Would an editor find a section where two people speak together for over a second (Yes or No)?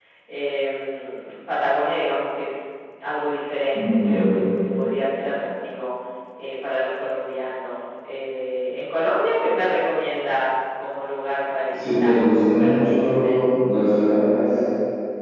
Yes